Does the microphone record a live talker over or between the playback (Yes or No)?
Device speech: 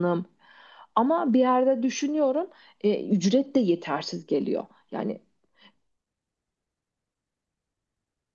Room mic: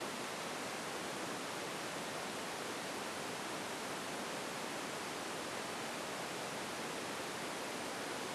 No